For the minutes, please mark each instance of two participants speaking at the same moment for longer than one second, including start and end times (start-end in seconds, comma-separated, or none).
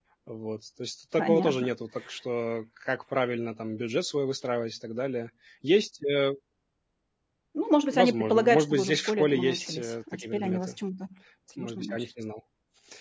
7.9-10.6